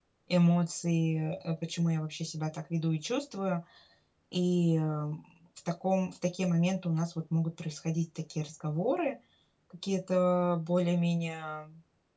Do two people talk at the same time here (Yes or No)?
No